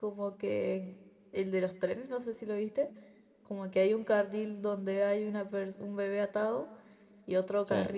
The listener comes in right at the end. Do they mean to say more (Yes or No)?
No